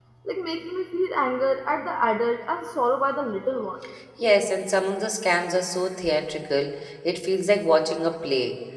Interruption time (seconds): none

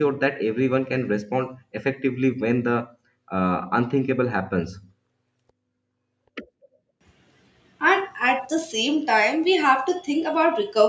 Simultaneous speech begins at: none

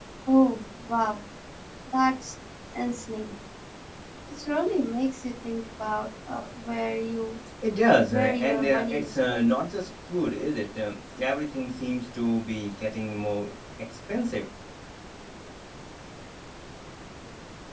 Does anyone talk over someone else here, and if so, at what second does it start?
8.0 s

